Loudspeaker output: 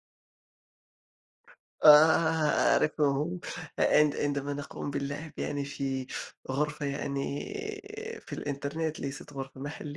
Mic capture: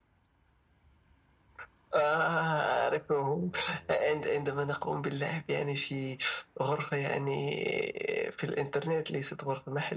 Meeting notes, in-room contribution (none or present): none